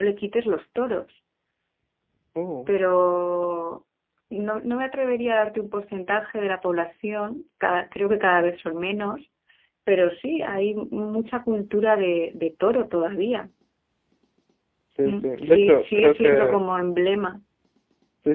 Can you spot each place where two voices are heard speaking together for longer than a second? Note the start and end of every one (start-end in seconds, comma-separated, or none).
15.1-16.6